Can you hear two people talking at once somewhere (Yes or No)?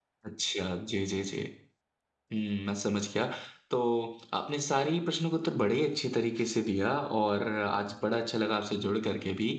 No